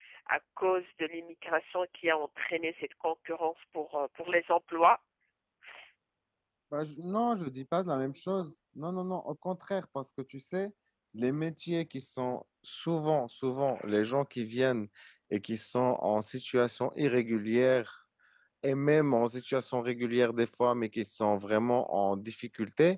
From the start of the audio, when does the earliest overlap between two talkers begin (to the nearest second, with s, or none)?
none